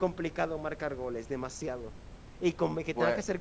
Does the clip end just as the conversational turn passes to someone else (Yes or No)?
No